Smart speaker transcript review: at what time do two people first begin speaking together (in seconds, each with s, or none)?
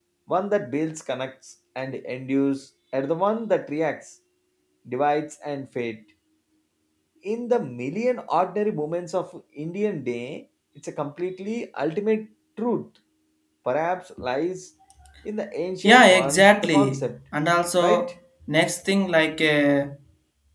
15.8 s